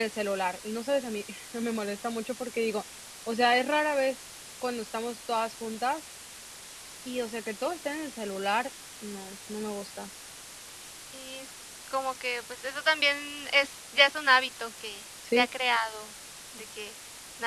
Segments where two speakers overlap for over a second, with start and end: none

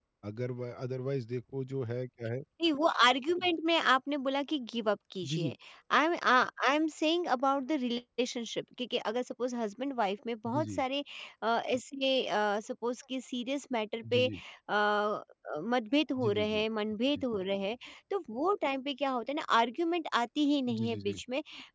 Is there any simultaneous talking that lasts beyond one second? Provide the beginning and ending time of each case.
none

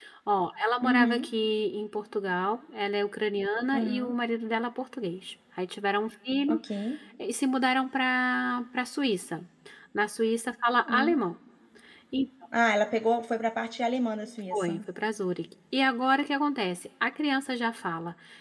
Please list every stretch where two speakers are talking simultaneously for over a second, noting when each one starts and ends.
none

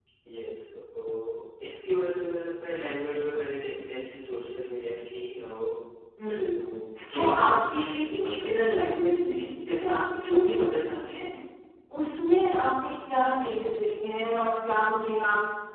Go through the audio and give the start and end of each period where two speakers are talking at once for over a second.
7.1-8.5

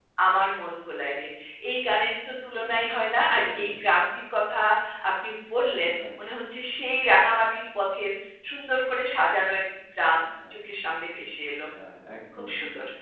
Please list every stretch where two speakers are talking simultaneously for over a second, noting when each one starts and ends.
none

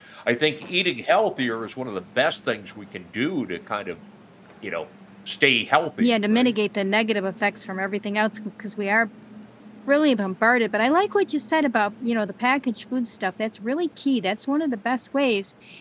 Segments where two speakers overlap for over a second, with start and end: none

